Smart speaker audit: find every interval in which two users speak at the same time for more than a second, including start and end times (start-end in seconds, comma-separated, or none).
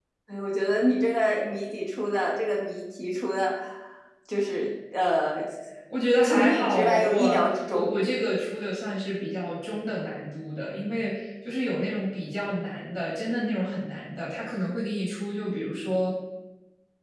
6.2-7.9